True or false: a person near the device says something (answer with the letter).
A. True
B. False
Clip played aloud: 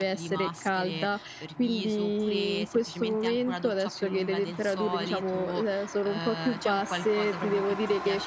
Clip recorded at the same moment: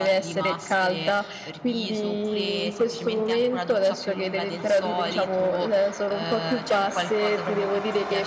B